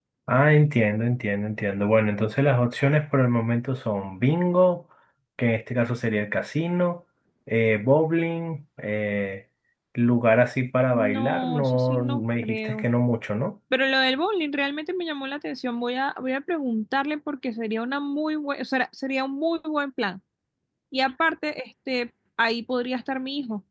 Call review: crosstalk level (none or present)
present